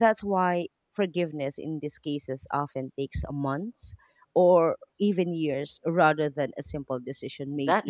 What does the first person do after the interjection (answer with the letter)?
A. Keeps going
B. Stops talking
B